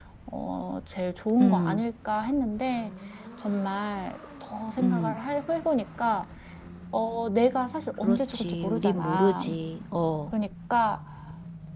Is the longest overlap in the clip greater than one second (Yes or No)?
Yes